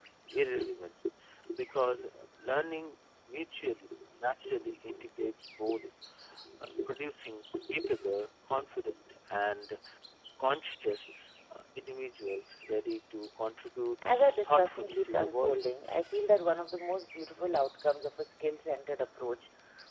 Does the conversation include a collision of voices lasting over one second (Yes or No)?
Yes